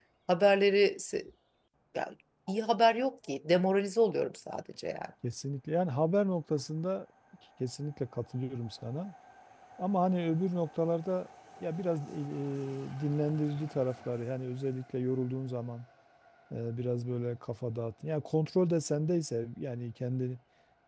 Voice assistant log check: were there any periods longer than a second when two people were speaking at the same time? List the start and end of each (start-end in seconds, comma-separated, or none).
none